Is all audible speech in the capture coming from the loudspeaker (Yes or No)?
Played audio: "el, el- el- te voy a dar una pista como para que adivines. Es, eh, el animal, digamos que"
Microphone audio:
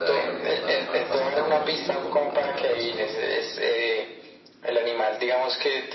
No